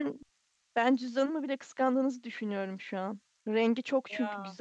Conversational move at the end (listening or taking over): listening